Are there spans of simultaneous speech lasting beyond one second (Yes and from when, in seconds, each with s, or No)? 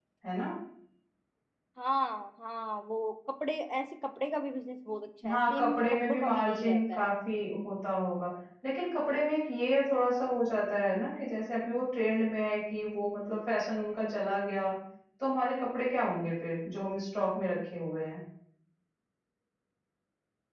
Yes, from 5.2 s